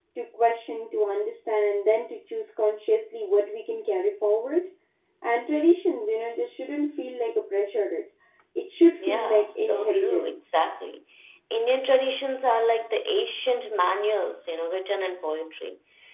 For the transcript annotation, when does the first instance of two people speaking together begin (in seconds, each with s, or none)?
9.0 s